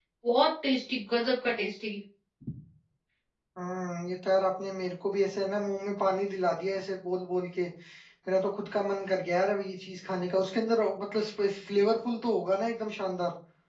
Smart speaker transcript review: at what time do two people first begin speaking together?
none

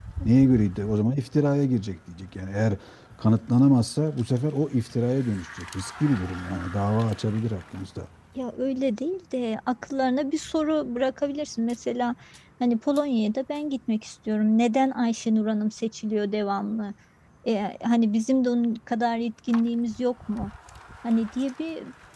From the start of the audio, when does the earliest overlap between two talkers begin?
none

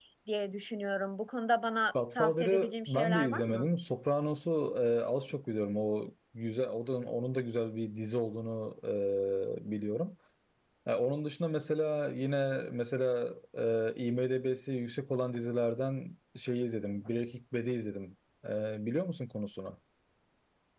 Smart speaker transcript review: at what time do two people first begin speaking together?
1.9 s

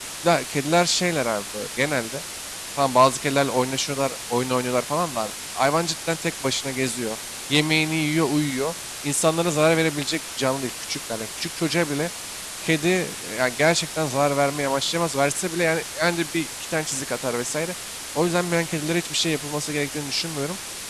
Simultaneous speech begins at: none

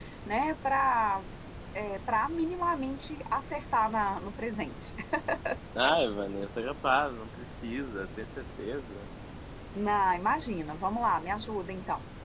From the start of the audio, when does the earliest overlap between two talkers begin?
none

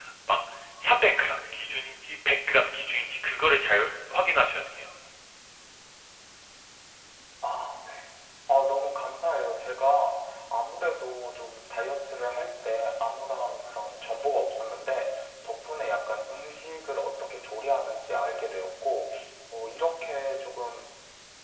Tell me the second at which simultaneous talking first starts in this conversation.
none

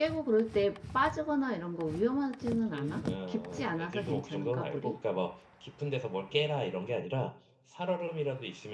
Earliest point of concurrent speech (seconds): 2.7 s

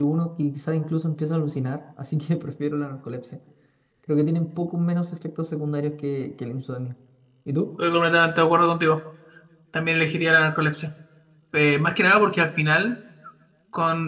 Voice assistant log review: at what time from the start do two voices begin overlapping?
none

